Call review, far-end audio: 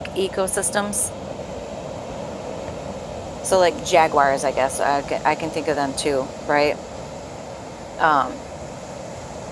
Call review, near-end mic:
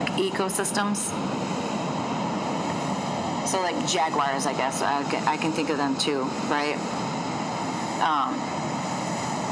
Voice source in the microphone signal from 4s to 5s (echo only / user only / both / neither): echo only